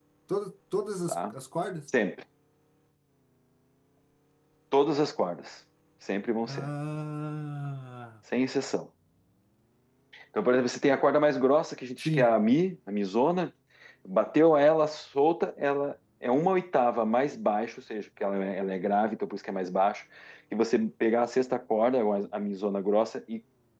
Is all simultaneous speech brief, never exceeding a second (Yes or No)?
Yes